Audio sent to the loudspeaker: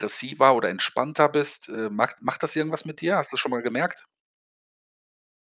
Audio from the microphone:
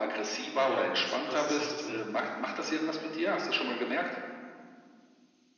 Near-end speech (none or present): present